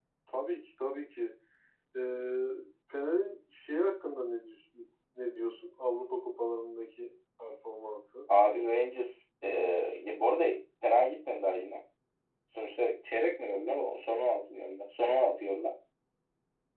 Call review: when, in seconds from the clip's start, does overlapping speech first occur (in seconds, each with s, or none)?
none